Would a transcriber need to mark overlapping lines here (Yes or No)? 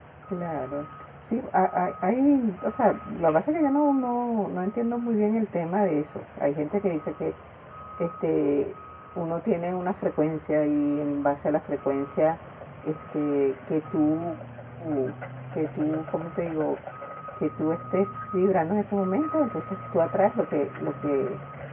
No